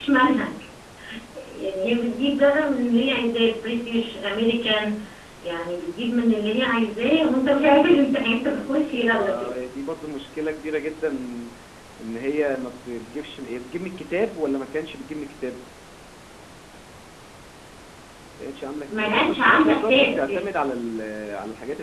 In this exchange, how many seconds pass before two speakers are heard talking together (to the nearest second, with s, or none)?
7 s